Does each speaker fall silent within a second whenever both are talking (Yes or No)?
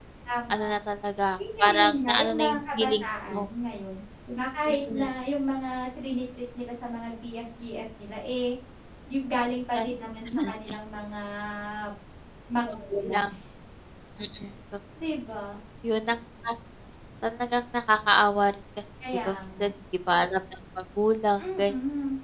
No